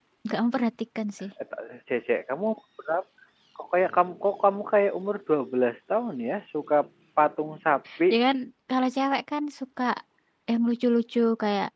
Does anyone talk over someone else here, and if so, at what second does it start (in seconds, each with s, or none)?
none